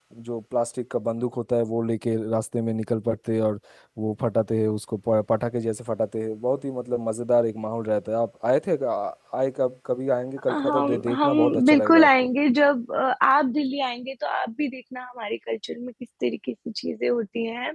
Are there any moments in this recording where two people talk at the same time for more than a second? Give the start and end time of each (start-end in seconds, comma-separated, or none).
10.5-12.3